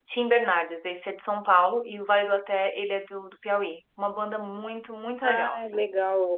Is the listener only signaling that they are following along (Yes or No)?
No